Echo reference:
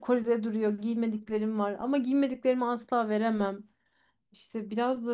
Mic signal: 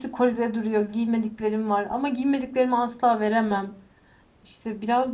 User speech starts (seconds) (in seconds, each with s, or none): none